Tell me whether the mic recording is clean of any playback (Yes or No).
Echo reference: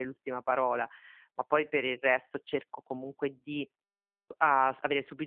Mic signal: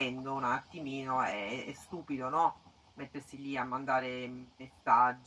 Yes